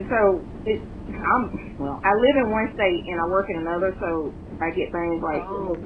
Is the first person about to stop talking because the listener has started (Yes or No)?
No